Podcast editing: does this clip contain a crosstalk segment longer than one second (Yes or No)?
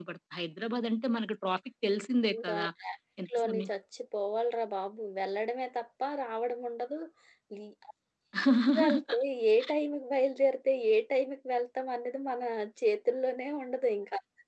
No